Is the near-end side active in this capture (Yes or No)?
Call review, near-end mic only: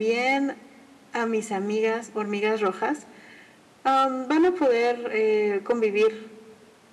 No